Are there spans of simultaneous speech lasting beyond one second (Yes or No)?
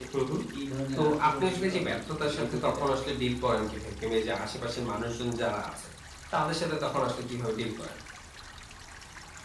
Yes